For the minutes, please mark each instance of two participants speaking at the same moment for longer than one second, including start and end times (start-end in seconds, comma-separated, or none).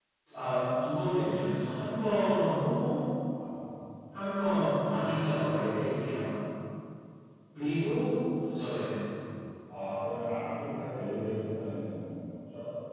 none